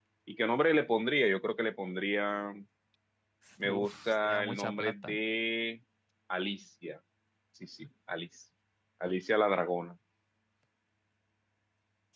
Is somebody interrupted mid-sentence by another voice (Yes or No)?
Yes